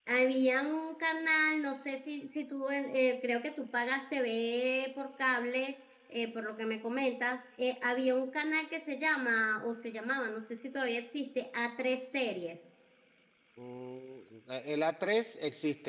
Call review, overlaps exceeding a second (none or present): none